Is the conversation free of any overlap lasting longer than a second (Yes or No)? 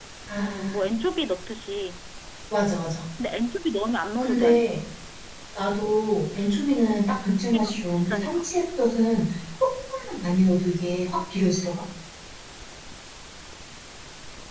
No